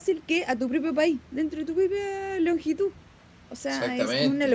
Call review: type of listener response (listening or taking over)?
listening